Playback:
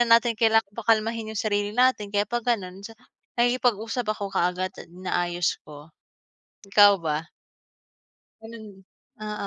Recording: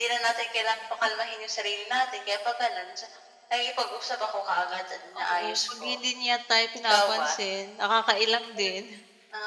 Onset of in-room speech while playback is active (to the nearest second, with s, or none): 5 s